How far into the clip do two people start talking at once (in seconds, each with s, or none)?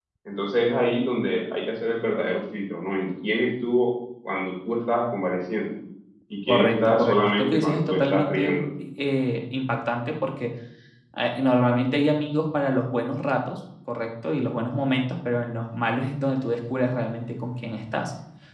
6.5 s